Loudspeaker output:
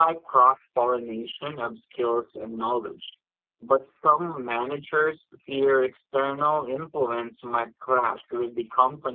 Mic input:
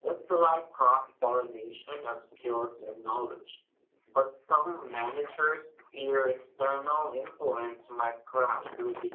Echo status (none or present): present